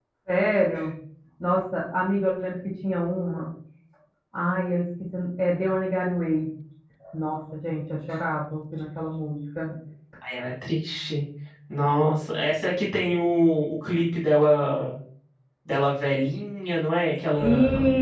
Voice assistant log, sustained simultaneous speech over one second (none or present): none